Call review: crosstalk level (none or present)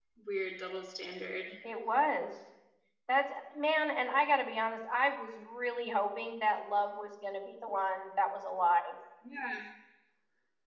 none